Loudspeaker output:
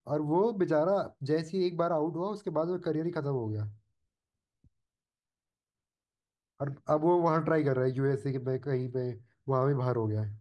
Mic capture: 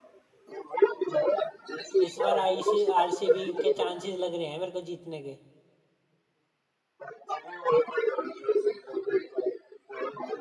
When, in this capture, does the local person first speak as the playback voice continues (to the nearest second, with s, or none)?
2 s